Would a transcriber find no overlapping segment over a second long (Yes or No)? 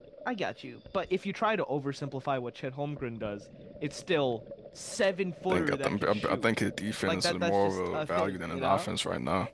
No